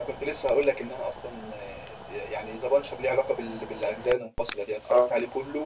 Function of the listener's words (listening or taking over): listening